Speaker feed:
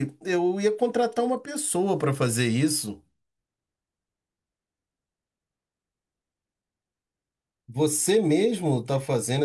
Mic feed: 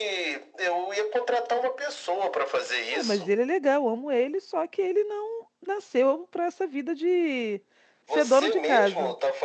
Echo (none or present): present